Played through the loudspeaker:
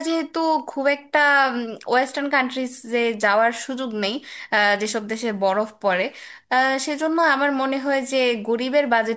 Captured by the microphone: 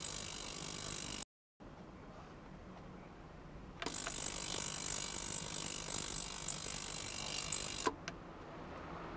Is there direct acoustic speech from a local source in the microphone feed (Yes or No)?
No